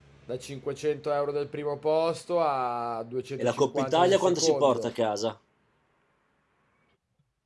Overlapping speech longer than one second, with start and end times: 3.4-4.9

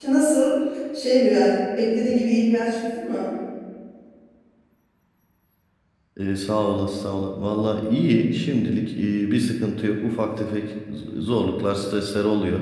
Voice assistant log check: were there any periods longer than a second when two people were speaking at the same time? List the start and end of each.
none

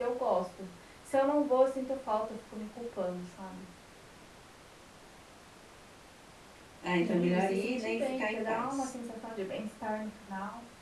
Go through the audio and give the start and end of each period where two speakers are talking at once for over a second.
7.0-8.9

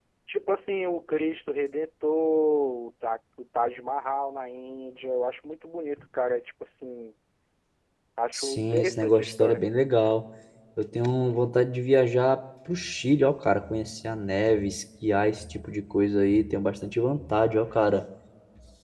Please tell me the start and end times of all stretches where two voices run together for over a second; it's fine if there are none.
8.3-9.6

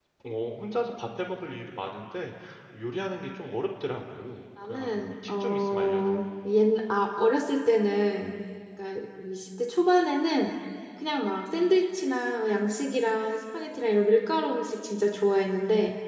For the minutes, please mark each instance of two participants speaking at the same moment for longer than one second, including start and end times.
4.6-6.0

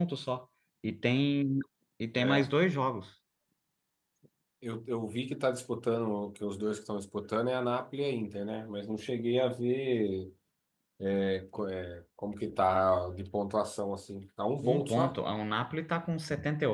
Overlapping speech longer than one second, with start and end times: none

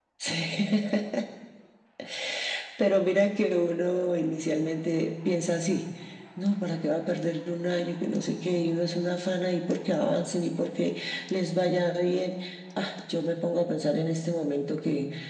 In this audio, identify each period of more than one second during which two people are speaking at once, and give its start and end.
none

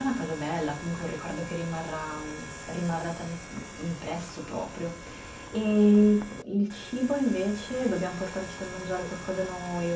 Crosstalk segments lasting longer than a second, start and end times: none

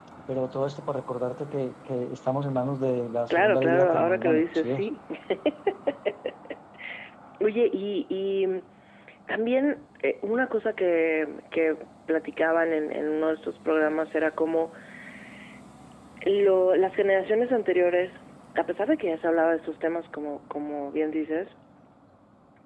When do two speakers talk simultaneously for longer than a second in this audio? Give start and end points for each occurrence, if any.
3.3-4.8

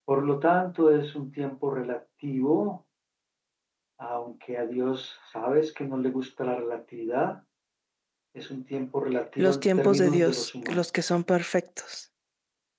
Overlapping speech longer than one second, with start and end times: 9.4-10.8

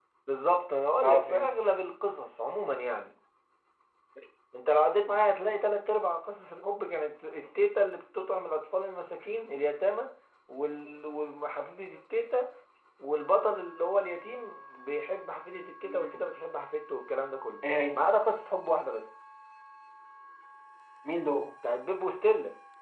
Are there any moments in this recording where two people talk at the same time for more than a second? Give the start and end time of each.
none

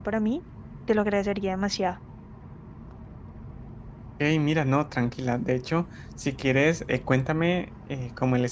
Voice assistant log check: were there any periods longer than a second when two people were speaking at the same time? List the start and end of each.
none

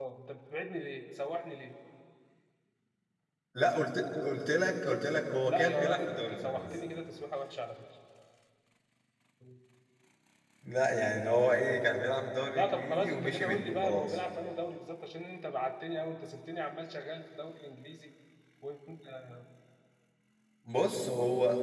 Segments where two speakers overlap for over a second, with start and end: 5.4-6.6, 12.5-14.2

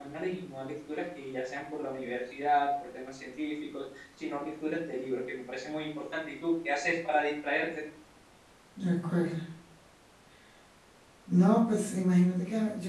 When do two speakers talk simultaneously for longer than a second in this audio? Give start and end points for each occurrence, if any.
none

